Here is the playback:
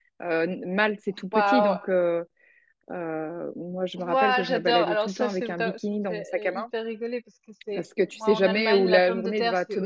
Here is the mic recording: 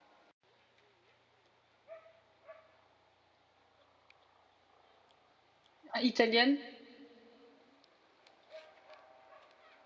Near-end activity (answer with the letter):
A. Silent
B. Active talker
B